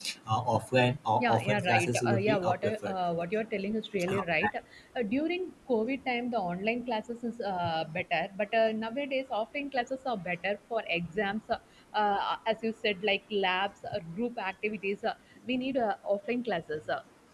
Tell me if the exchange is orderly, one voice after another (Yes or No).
No